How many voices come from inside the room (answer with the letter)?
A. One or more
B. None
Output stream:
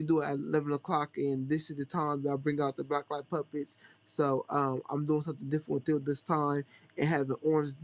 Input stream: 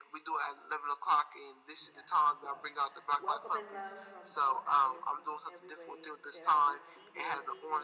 A